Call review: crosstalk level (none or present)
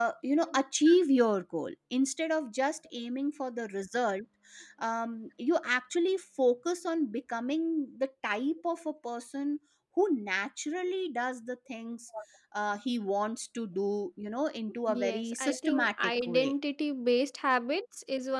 present